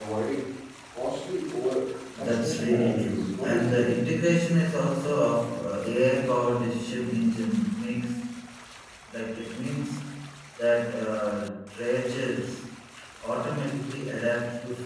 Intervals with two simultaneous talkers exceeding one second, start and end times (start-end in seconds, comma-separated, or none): 2.2-3.9